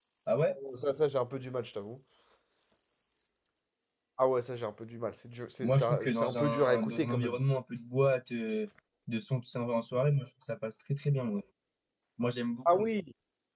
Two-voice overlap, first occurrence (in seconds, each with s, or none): 5.6 s